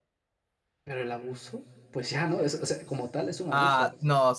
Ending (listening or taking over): taking over